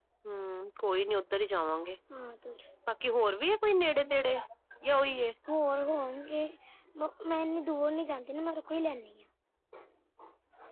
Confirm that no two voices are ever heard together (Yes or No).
Yes